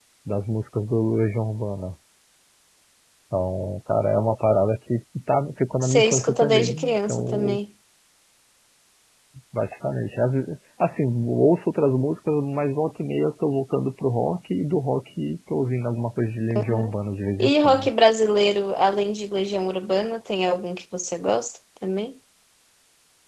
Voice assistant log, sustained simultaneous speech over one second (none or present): present